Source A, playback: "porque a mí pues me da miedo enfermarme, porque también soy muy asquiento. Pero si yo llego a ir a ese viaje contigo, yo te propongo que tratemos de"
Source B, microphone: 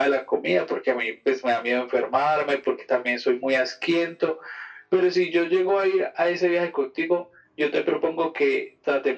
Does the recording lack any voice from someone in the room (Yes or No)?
Yes